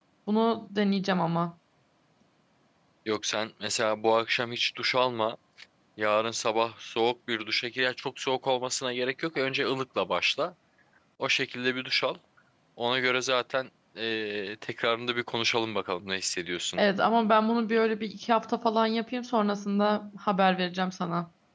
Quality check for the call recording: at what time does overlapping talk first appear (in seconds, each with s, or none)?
none